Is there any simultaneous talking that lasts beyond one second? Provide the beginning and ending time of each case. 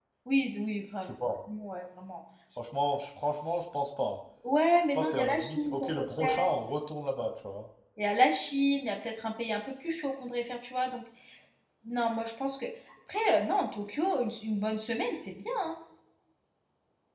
4.9-6.5

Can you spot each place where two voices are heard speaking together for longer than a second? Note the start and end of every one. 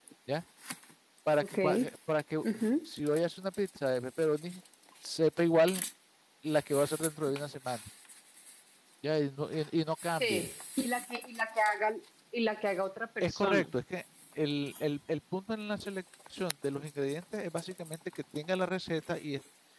none

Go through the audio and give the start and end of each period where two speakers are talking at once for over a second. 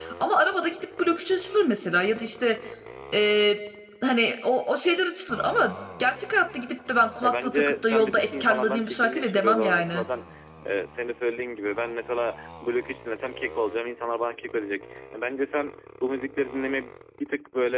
7.2-10.0

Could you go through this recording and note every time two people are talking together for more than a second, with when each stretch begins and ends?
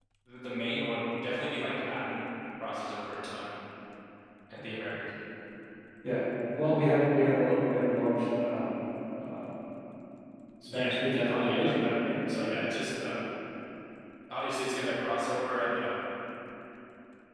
10.7-11.9

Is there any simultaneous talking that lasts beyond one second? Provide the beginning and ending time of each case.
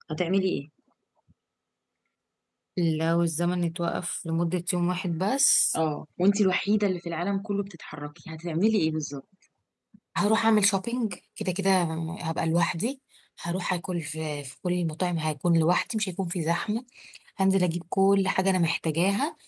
none

